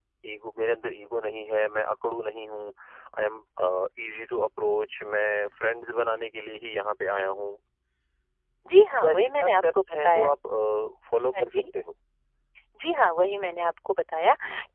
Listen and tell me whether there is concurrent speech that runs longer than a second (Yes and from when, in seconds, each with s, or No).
Yes, from 9.0 s